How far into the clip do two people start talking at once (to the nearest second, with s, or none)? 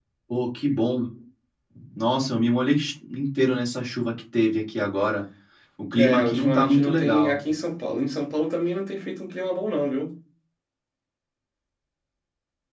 6 s